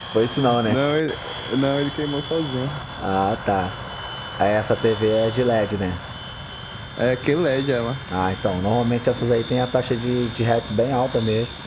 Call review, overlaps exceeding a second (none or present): none